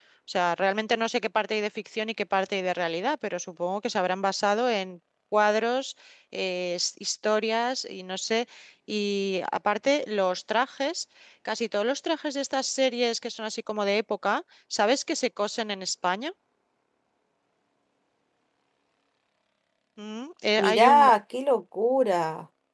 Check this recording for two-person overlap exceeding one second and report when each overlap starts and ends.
none

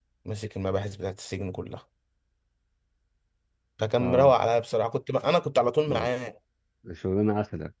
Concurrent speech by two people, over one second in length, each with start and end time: none

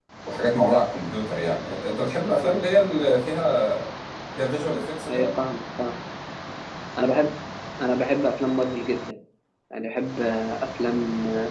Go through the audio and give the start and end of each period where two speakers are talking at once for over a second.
none

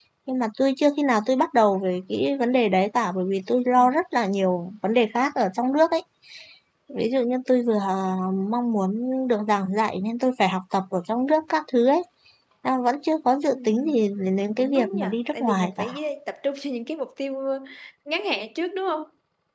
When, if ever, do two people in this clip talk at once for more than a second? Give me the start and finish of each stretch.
14.6-15.9

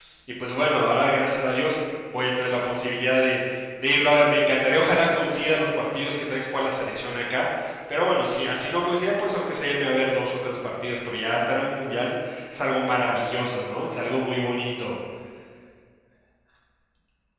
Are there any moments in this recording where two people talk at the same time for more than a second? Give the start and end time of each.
none

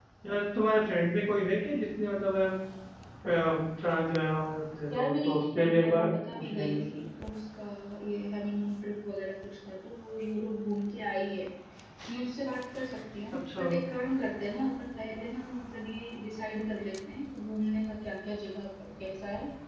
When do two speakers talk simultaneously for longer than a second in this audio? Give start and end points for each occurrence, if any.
4.9-6.8

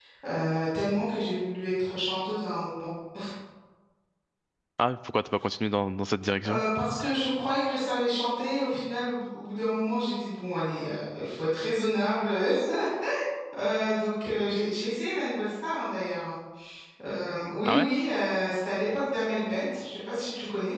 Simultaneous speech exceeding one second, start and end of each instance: none

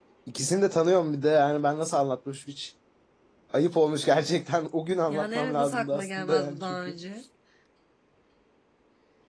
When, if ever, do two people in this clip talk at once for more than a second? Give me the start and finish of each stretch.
5.1-7.0

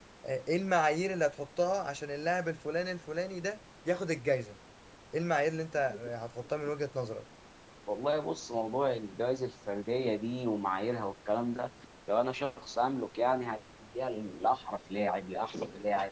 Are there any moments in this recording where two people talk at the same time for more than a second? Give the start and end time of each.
none

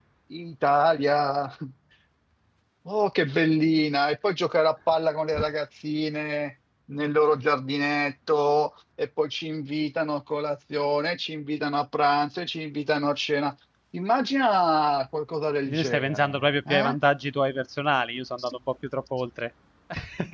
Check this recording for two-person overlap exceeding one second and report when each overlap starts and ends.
15.7-16.9

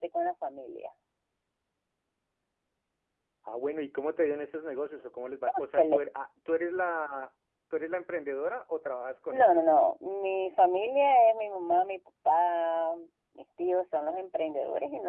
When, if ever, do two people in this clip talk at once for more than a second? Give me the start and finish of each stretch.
none

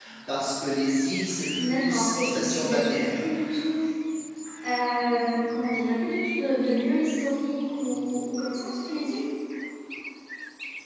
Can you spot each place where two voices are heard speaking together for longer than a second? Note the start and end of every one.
1.6-3.2

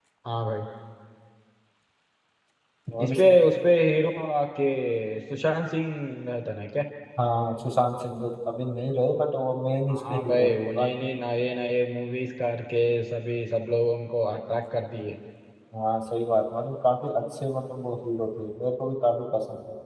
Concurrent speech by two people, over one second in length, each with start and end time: 9.9-11.1

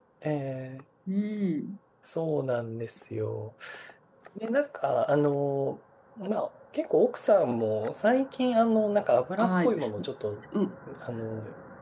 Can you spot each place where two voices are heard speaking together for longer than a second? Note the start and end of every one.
none

